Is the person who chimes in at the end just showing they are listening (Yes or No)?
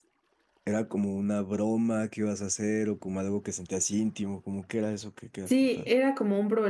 No